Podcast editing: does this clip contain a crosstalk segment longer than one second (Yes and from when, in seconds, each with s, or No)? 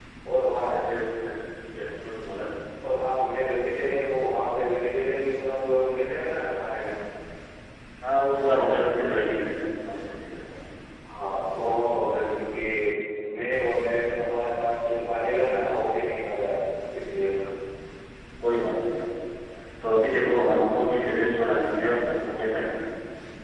No